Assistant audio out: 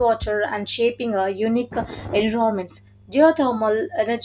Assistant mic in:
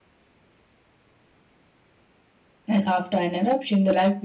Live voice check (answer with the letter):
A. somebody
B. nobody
A